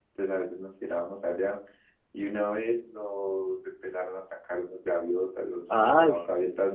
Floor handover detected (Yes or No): No